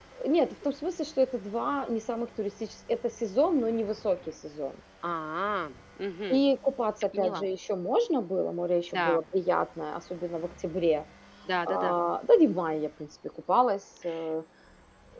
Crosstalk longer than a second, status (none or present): none